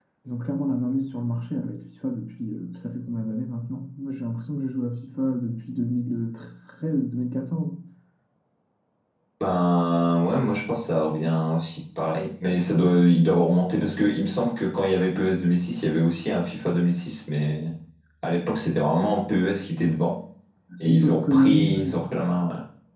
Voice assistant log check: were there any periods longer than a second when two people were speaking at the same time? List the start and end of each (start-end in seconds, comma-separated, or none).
20.8-22.0